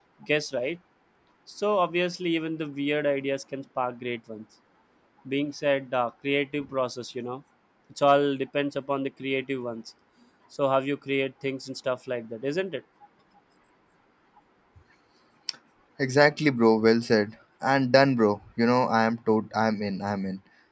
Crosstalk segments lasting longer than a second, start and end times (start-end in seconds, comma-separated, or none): none